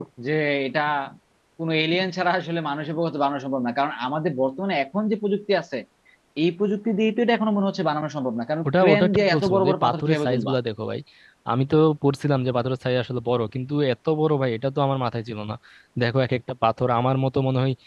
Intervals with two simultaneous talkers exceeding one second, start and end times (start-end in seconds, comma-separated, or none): 8.7-10.5